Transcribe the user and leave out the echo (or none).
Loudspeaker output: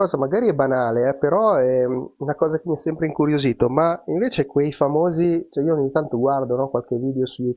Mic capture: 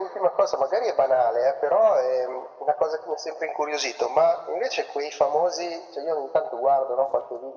none